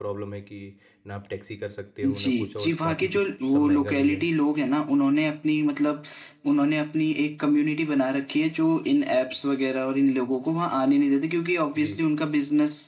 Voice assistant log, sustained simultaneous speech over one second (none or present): present